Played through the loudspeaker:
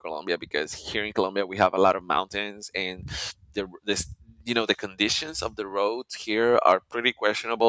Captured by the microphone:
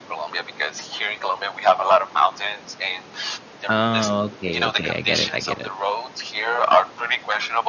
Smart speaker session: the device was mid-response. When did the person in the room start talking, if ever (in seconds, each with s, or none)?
3.7 s